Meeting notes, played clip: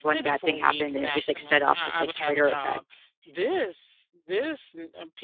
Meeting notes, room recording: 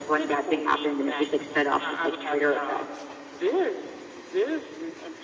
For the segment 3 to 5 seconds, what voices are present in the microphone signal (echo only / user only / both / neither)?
echo only